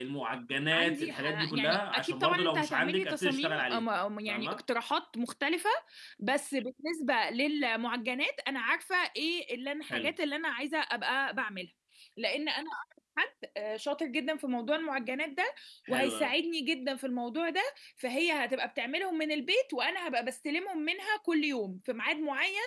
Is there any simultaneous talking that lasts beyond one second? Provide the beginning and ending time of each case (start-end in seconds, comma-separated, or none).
0.7-3.8